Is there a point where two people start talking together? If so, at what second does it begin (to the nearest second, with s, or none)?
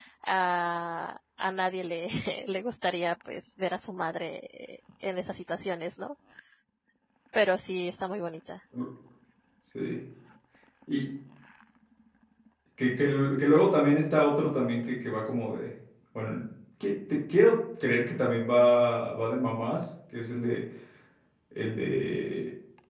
none